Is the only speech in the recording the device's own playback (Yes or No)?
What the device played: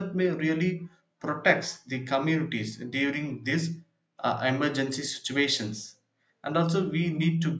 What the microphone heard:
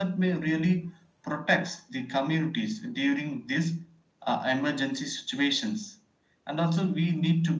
Yes